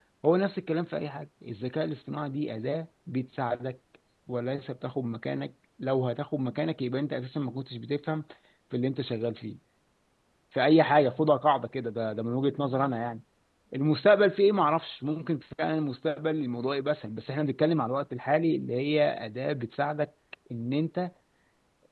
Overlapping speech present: No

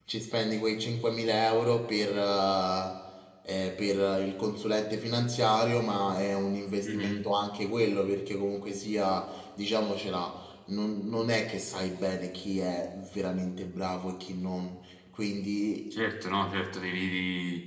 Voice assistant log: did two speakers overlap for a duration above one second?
No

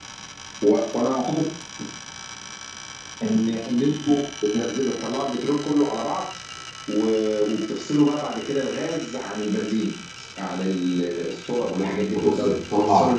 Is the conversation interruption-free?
No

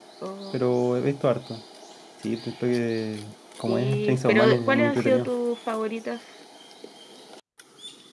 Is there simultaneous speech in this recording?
Yes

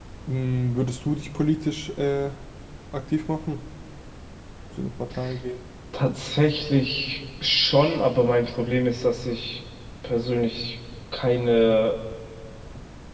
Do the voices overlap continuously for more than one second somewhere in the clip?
No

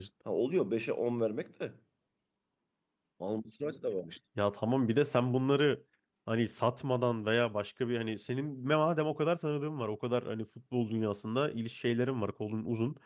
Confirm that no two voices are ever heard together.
Yes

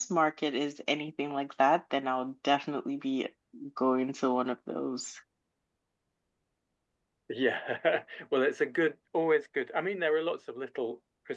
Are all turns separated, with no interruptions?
Yes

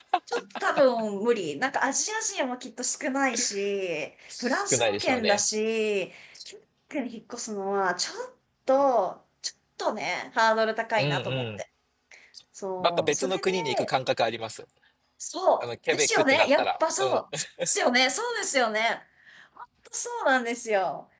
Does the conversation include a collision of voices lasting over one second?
Yes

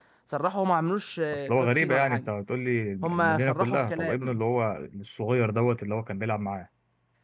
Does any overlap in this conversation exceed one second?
Yes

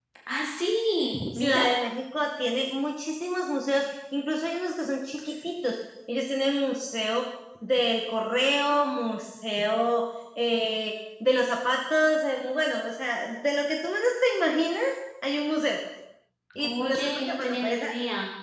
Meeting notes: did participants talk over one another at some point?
Yes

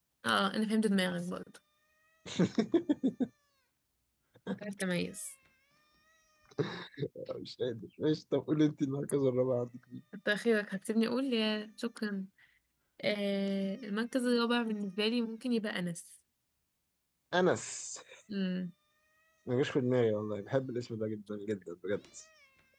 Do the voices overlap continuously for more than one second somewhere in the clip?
No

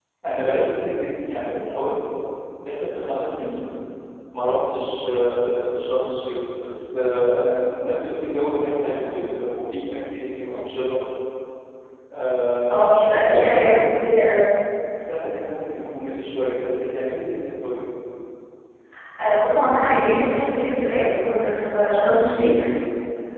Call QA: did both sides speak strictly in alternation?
No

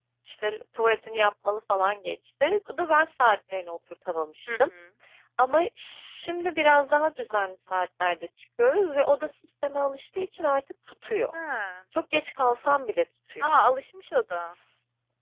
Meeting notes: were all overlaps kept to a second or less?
Yes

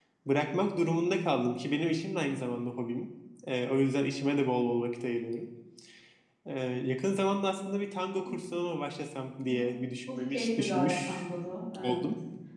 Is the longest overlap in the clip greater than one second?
Yes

